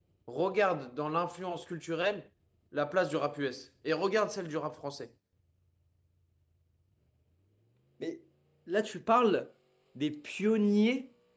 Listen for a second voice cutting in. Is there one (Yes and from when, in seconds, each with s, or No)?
No